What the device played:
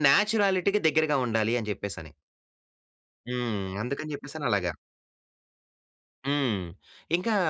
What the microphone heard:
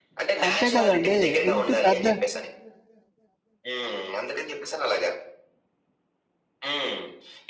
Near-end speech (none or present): present